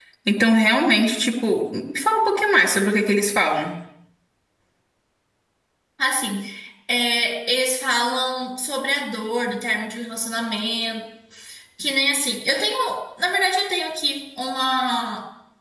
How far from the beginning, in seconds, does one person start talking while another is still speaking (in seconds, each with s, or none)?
none